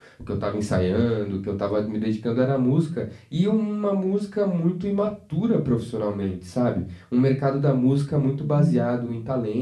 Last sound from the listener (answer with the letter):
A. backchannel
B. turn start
A